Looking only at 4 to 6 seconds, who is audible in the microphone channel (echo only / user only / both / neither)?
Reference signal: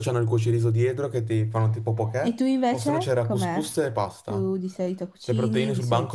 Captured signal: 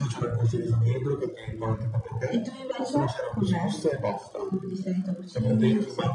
echo only